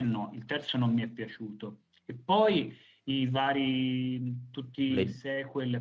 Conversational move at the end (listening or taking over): listening